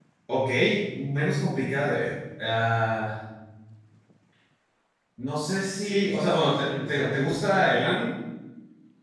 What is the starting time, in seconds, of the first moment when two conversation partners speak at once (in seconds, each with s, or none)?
5.8 s